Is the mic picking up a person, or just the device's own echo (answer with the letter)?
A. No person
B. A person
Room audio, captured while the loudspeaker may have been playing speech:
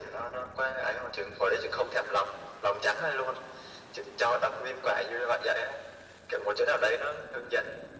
A